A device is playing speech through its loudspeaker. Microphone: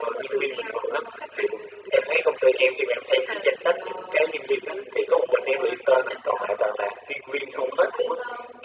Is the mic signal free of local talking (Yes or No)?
Yes